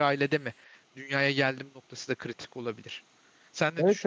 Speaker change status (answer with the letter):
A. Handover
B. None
A